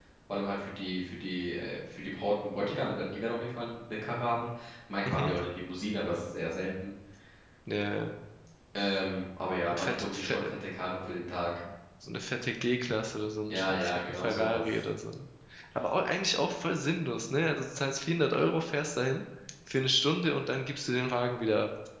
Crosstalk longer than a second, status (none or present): present